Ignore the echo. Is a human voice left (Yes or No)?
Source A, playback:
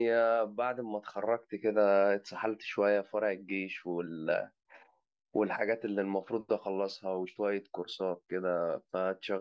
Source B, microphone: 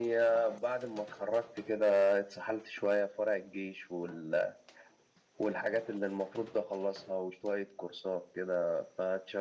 No